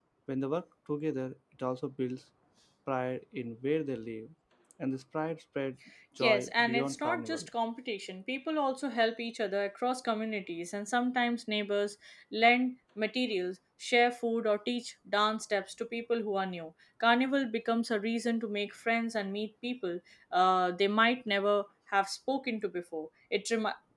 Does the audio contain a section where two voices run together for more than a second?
Yes, from 6.2 s

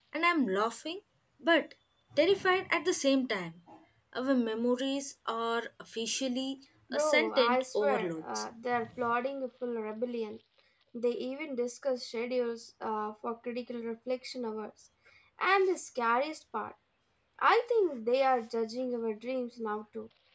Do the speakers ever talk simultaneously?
Yes, from 6.9 s

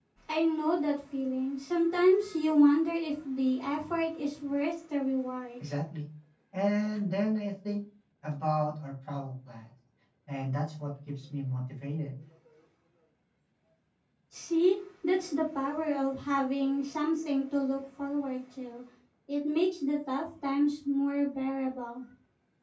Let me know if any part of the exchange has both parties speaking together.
No

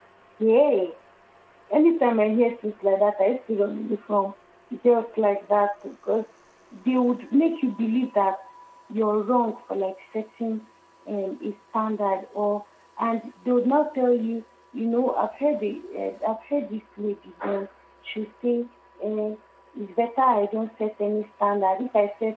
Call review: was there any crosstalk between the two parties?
No

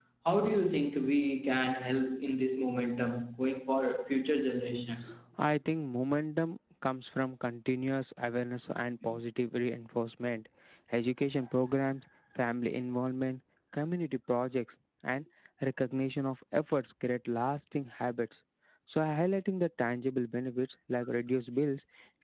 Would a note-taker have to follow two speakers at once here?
No

